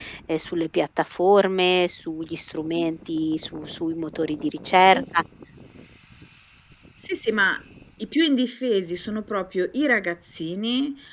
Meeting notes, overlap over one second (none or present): none